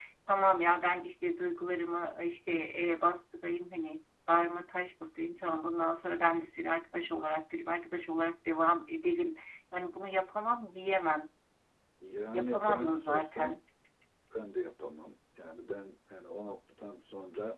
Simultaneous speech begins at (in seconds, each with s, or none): 12.3 s